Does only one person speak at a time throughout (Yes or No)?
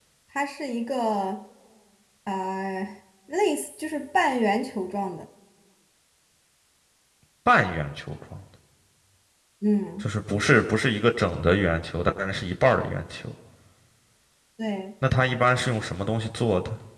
Yes